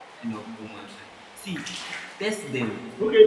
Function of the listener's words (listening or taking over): taking over